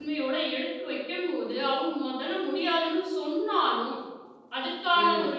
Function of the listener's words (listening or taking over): listening